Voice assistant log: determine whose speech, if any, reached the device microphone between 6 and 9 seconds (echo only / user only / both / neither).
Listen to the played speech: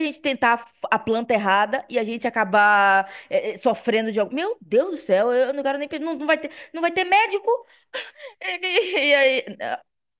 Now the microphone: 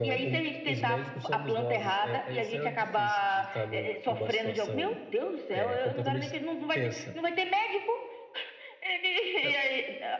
both